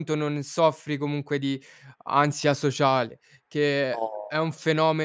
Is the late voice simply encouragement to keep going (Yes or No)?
Yes